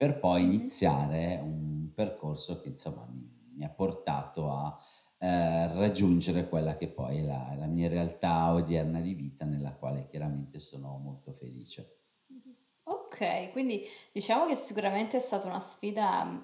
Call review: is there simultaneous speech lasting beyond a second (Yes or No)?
No